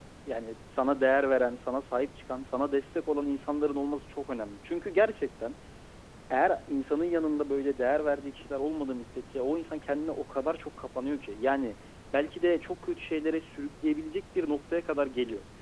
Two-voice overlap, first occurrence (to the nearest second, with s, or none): none